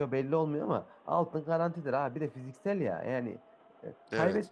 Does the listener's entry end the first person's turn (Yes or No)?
No